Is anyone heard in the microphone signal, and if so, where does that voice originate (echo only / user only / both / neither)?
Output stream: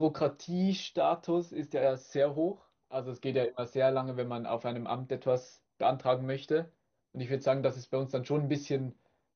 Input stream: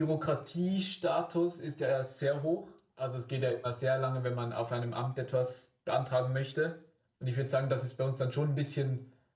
echo only